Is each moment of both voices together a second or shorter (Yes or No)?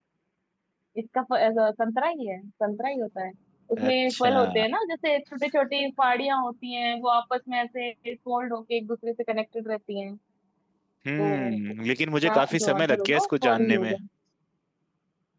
No